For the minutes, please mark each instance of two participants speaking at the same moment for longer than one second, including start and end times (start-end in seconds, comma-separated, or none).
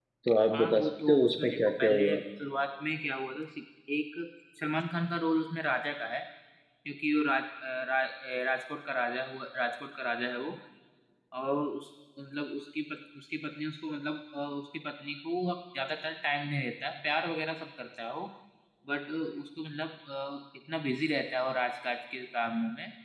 0.5-2.2